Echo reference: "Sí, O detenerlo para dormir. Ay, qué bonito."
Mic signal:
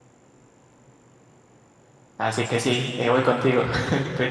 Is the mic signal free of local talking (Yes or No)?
No